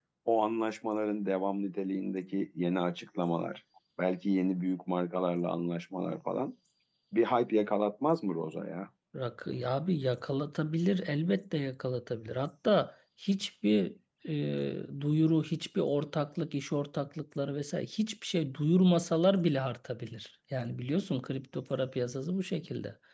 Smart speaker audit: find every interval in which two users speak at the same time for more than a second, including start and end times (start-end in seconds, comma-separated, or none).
none